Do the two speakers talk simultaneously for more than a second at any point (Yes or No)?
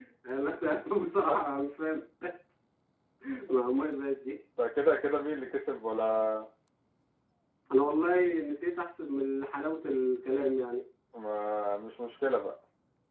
No